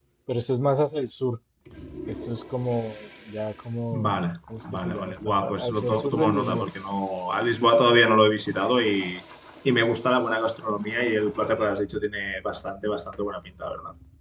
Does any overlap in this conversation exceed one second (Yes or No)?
Yes